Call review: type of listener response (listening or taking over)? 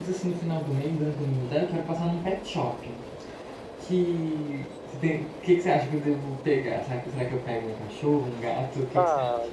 taking over